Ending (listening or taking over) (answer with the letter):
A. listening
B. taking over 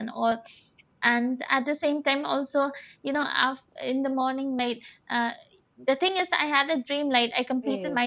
A